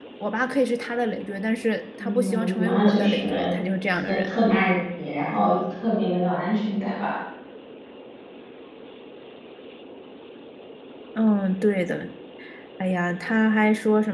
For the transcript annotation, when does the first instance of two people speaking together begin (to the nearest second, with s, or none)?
2 s